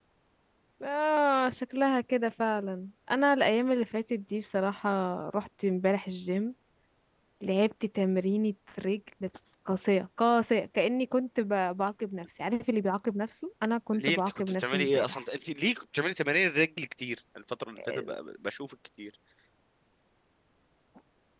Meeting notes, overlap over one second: present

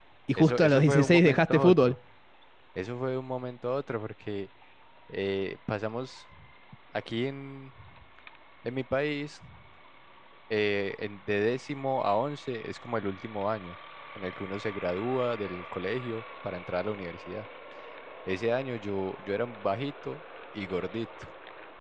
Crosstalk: present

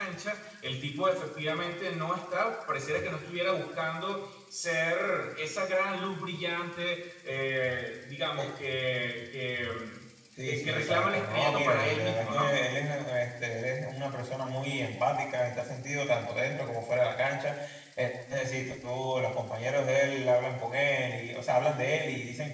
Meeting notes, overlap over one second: present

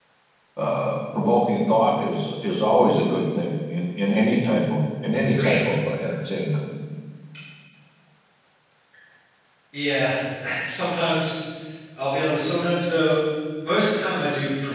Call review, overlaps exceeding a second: none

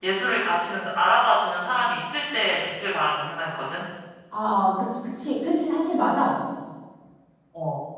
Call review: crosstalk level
none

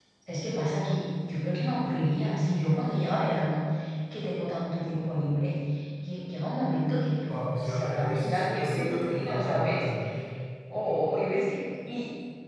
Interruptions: present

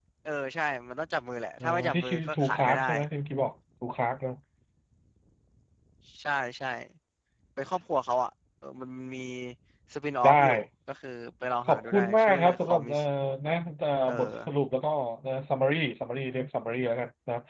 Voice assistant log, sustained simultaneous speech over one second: present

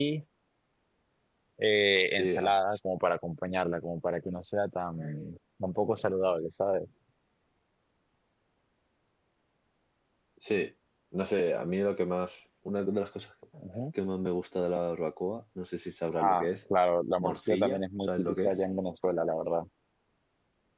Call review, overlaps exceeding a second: present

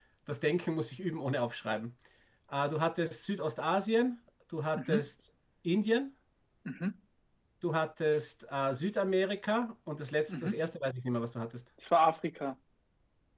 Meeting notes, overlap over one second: none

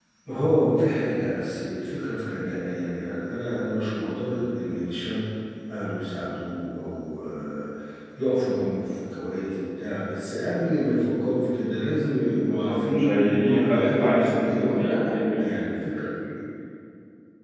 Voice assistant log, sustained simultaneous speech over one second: present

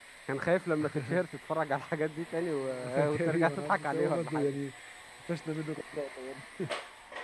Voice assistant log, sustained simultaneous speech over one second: present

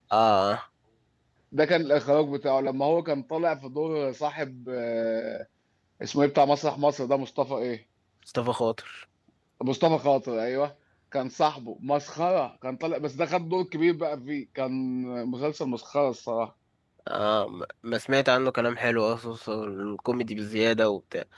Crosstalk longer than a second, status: none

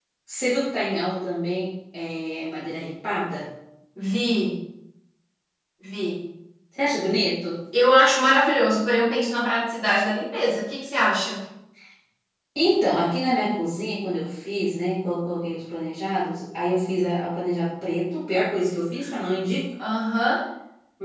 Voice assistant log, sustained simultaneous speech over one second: none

